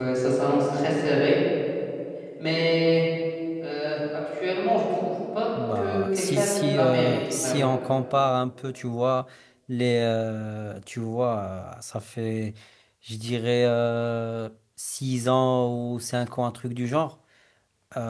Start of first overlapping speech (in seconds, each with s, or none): 5.6 s